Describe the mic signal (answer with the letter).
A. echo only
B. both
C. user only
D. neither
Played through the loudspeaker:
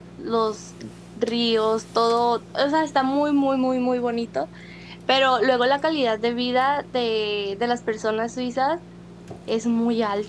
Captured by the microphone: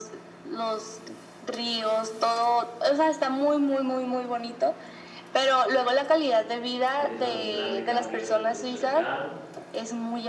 B